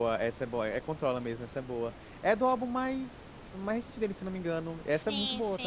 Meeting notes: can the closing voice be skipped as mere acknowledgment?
No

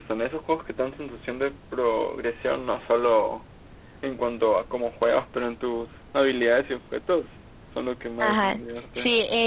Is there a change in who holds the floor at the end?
Yes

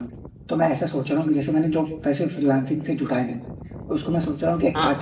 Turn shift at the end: No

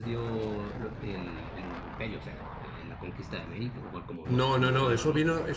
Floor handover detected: Yes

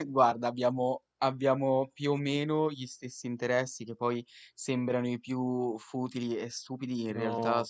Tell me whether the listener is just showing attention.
Yes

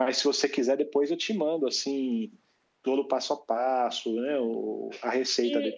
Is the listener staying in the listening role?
No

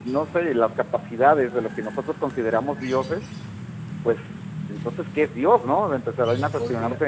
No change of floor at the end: No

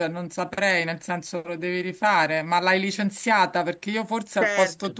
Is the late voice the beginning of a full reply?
No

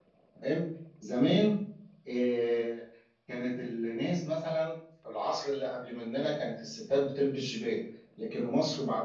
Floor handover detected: No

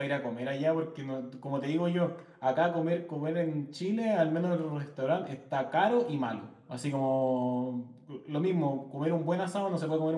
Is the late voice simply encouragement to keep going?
Yes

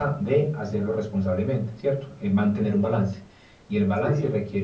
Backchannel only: Yes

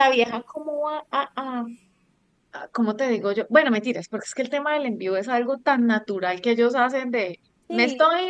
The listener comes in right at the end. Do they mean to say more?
No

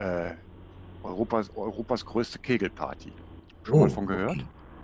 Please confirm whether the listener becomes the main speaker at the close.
Yes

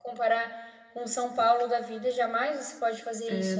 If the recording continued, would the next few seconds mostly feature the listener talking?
Yes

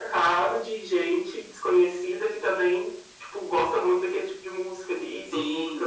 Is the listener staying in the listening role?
No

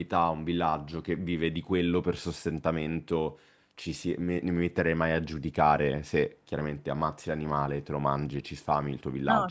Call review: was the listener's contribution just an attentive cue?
Yes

